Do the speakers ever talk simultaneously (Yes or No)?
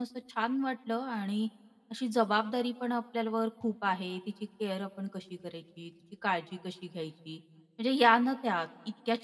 No